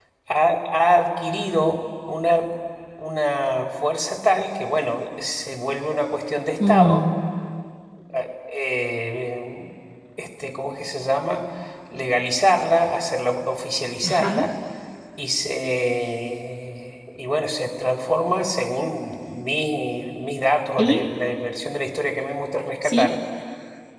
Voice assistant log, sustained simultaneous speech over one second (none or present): none